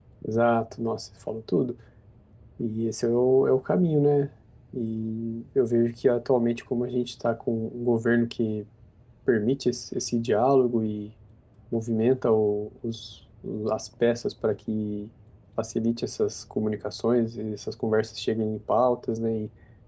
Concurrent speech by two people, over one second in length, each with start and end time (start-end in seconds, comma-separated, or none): none